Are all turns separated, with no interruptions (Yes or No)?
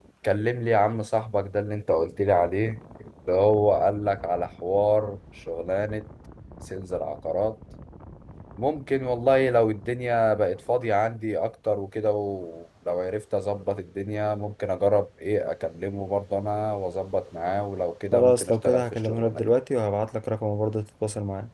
No